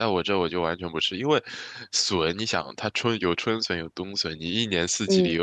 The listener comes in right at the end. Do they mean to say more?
No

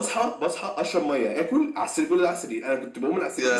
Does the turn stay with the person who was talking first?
Yes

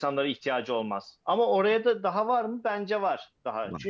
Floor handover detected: No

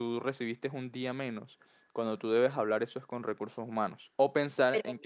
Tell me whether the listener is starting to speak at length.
No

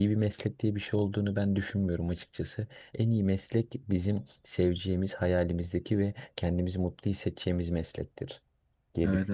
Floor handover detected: Yes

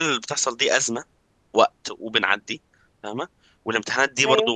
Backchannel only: Yes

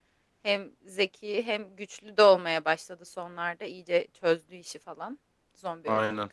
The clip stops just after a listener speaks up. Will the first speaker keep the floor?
Yes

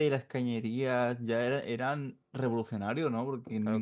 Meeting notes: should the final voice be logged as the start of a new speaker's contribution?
Yes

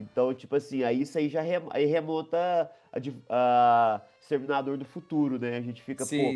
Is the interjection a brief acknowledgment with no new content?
Yes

